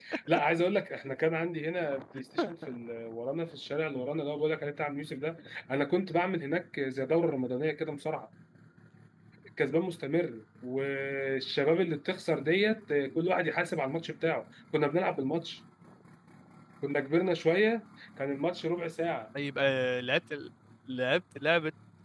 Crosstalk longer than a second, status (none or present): none